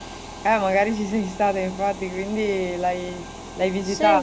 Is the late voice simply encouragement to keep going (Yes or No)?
No